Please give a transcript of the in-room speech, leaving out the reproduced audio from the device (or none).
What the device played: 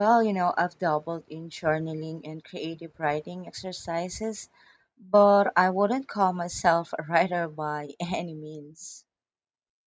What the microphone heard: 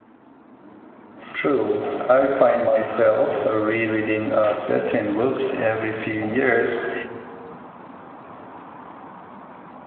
True. I find myself rereading uh, certain books every few years